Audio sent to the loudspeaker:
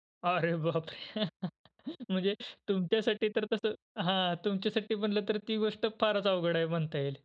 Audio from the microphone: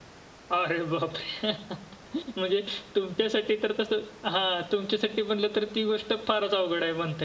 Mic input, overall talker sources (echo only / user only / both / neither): echo only